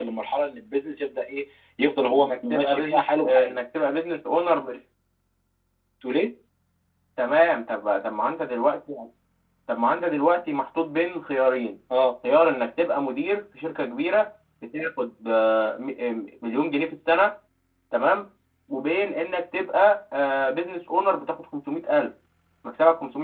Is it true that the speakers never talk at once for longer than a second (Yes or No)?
No